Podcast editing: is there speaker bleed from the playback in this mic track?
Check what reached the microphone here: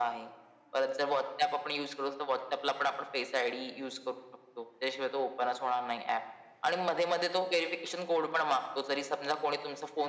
Yes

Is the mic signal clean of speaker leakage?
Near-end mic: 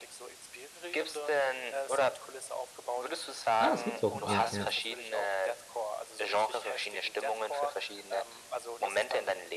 No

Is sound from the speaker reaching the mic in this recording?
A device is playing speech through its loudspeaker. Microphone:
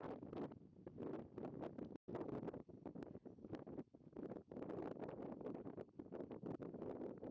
No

